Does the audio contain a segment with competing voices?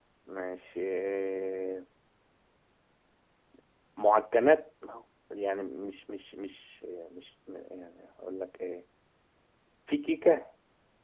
No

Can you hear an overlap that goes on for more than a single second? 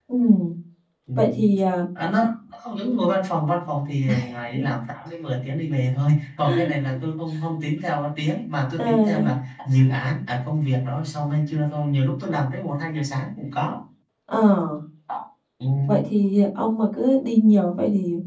No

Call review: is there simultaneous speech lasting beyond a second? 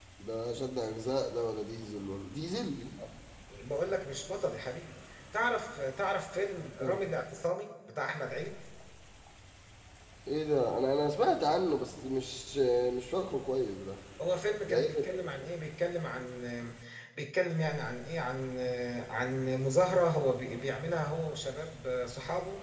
No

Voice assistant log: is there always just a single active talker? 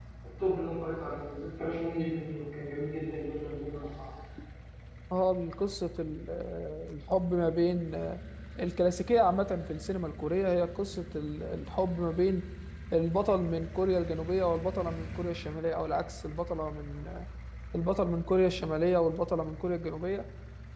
Yes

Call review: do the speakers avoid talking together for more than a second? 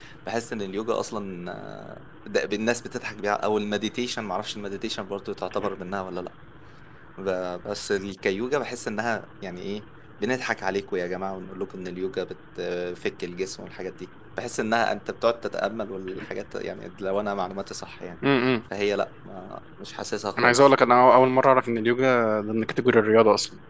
Yes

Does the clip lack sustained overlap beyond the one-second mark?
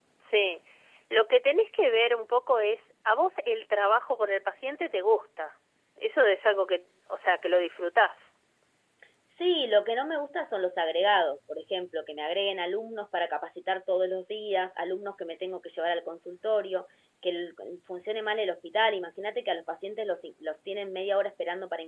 Yes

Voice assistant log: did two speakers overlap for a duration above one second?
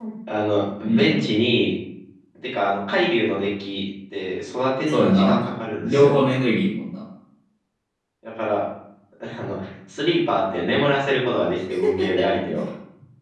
No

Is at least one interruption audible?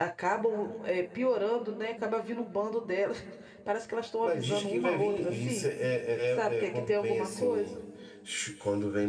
Yes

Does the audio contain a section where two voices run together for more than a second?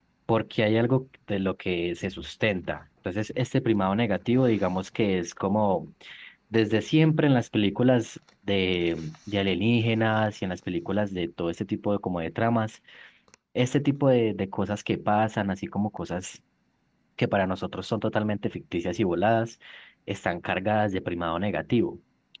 No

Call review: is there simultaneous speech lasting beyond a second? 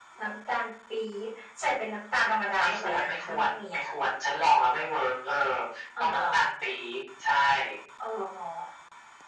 Yes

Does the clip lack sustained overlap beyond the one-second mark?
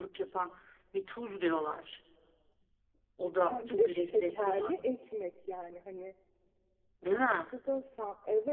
No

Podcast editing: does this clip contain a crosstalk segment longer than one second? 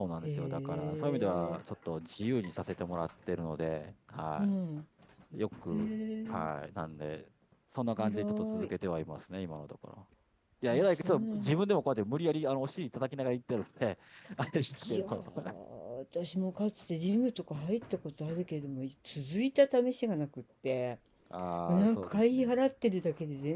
Yes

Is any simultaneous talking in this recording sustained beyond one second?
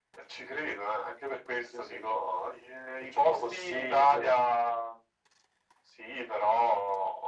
Yes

